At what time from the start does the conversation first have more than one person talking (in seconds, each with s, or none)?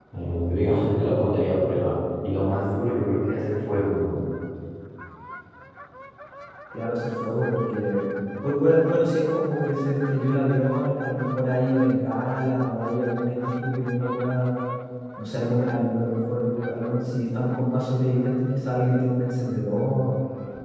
none